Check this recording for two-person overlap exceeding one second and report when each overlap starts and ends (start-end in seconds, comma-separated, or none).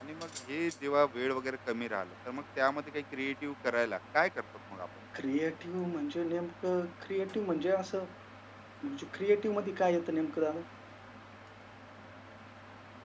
none